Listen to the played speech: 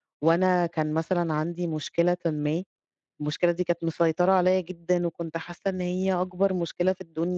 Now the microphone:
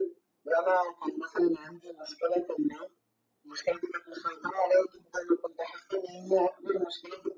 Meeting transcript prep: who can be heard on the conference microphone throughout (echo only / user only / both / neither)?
echo only